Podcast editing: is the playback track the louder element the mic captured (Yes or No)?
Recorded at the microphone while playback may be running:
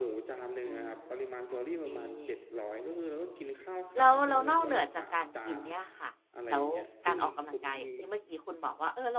No